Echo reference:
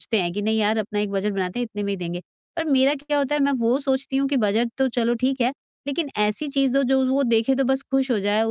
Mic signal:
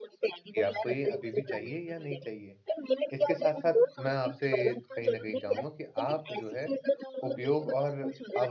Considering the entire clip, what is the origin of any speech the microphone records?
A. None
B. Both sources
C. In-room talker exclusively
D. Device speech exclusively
B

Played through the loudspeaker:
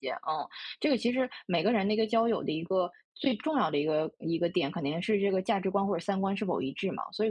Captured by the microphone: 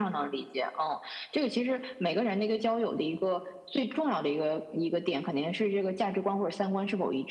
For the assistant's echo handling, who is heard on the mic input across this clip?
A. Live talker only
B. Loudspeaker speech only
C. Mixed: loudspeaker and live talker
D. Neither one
B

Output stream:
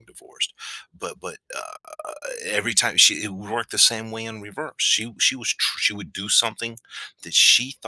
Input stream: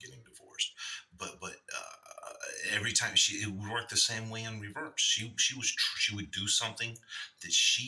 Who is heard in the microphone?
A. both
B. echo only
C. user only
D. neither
B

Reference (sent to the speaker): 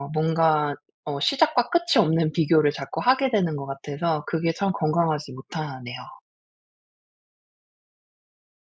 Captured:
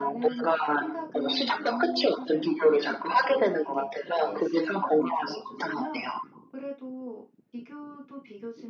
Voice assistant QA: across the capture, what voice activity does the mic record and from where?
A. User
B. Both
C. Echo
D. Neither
B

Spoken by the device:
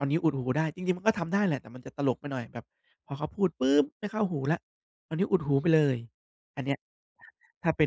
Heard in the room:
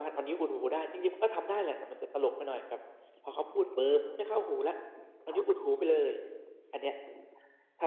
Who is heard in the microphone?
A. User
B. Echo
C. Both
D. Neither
B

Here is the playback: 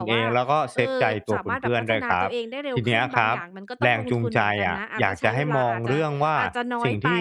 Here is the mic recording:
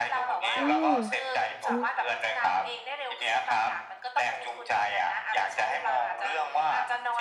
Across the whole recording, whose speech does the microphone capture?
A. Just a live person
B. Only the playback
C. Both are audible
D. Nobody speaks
C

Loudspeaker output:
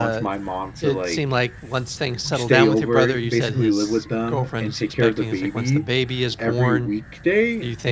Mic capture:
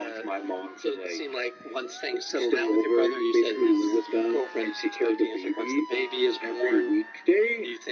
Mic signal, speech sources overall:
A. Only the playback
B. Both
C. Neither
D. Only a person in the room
A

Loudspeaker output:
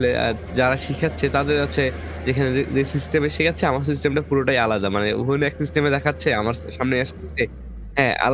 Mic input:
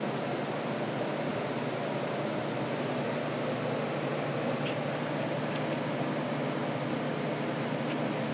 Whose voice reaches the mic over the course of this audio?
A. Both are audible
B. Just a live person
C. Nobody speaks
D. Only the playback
C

